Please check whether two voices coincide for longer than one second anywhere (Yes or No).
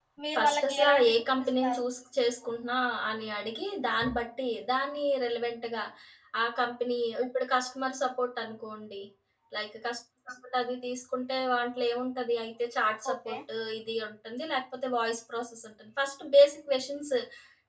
Yes